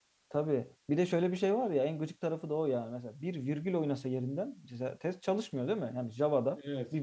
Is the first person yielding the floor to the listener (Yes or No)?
No